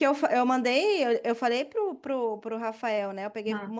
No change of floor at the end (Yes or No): Yes